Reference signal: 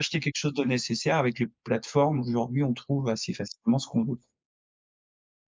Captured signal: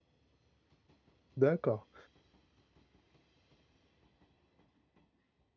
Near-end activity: present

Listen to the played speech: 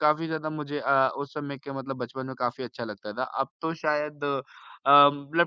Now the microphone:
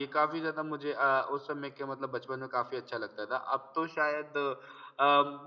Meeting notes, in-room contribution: none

